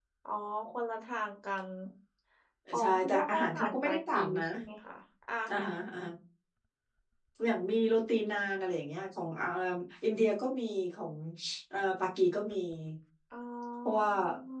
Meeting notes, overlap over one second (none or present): present